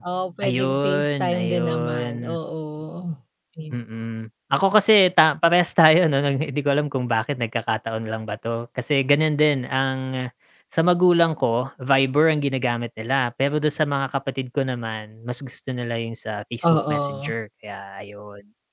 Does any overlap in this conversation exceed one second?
Yes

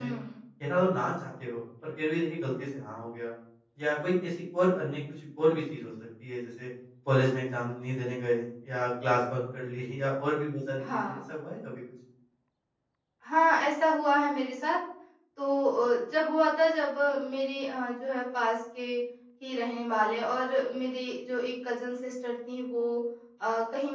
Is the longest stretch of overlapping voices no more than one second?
Yes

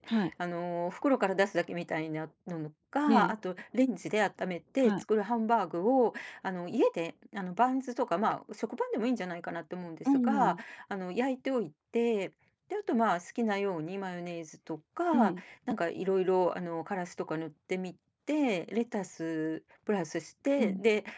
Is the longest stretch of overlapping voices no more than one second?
Yes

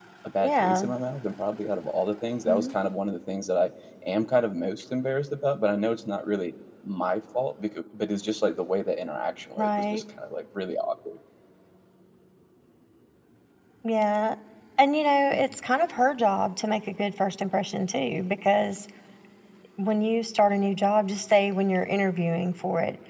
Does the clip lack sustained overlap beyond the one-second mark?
Yes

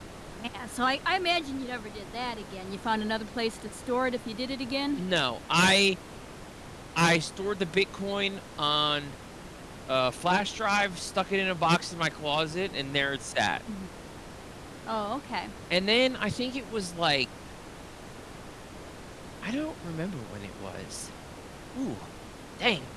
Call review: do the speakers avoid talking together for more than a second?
Yes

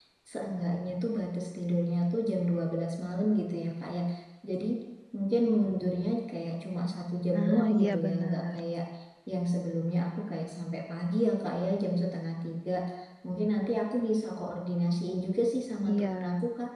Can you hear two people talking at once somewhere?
Yes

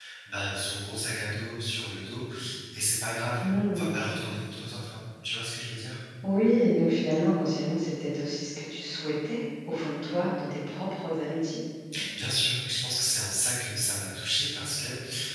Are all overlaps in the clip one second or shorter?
Yes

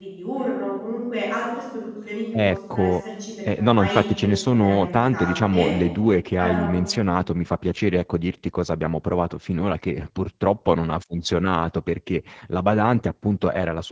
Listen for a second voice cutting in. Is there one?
Yes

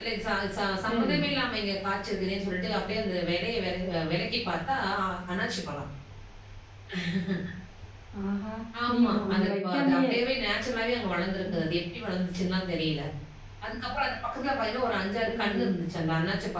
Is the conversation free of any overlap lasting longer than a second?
No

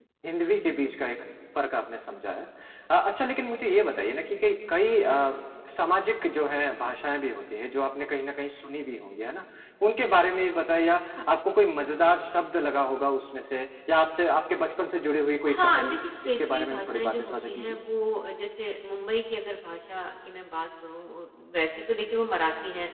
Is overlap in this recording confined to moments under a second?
No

